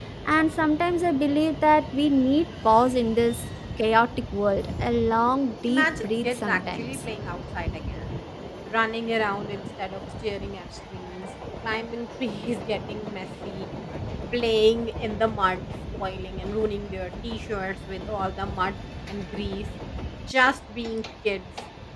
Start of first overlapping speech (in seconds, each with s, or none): 5.7 s